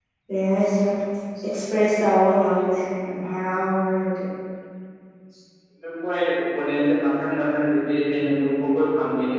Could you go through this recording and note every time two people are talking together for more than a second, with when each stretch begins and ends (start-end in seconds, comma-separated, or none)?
none